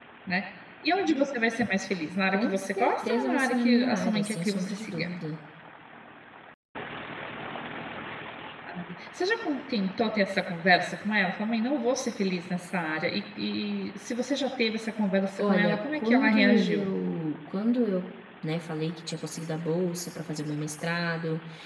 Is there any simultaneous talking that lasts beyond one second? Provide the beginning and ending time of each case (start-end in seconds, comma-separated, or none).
2.3-5.1, 15.4-16.9